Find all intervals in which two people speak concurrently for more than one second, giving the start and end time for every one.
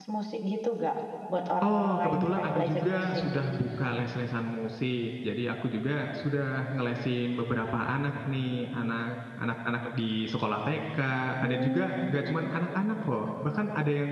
1.6-3.0

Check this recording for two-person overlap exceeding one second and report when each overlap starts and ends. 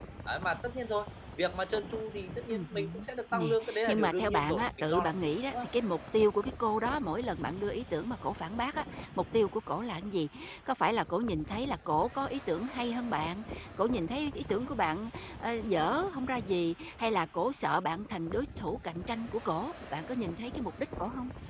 2.5-5.7

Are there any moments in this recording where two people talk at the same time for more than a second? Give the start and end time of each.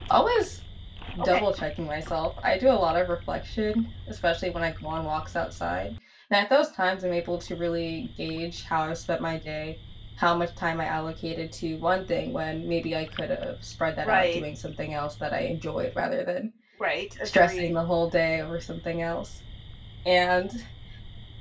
none

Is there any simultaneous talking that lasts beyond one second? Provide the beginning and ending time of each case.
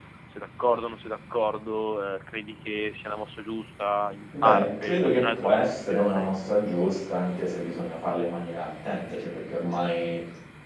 4.4-6.3

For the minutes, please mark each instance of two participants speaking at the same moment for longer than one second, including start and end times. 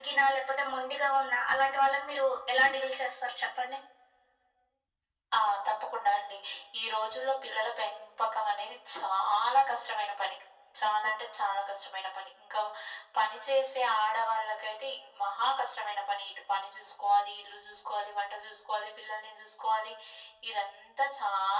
none

